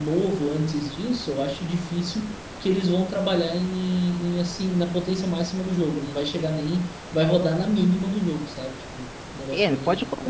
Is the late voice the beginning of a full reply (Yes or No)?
Yes